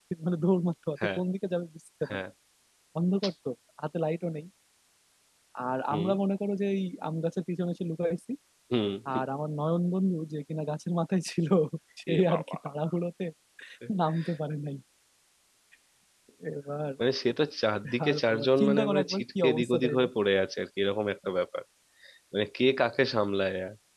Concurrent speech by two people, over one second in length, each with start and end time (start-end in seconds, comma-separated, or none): 18.1-20.1